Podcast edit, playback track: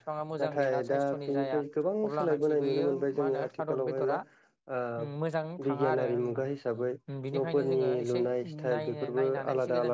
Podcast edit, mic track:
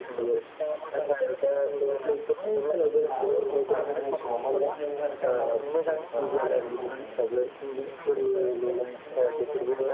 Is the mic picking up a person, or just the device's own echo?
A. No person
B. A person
B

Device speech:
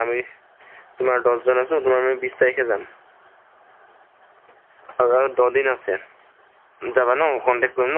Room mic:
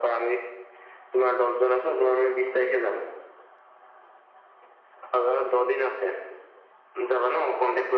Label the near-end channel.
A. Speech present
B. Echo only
B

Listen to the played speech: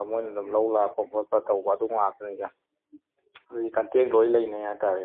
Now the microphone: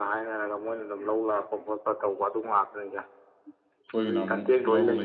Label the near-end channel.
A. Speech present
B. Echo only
A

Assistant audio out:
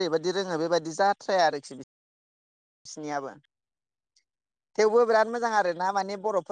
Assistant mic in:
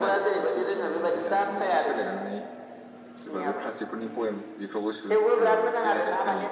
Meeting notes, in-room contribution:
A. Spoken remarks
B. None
A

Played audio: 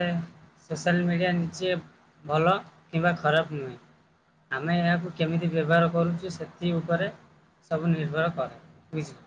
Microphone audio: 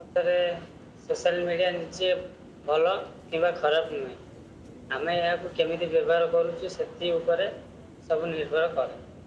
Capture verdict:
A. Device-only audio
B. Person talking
A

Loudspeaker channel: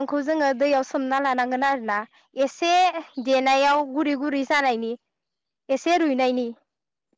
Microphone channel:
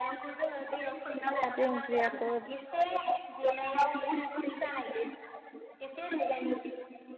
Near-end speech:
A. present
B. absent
A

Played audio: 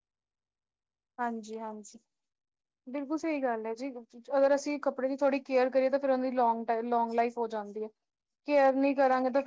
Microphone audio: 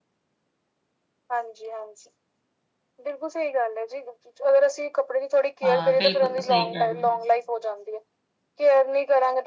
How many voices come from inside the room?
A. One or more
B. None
A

